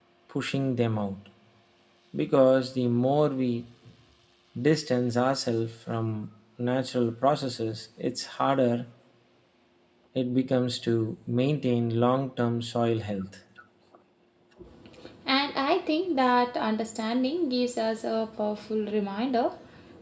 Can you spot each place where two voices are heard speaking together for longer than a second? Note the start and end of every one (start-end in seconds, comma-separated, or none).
none